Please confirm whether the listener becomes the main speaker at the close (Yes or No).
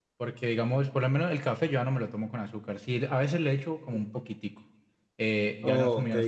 No